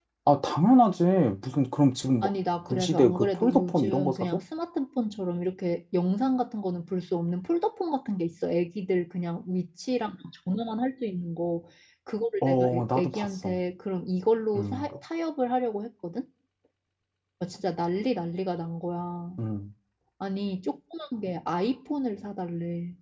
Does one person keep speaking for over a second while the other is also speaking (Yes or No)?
Yes